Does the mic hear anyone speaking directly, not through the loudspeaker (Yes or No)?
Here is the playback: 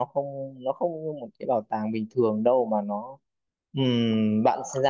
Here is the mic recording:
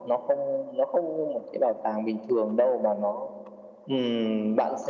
No